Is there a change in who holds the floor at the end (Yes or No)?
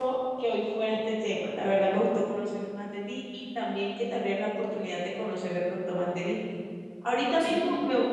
No